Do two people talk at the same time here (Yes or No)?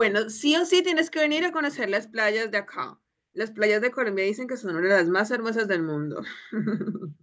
No